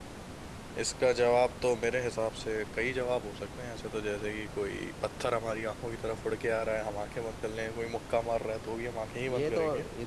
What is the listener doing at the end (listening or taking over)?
taking over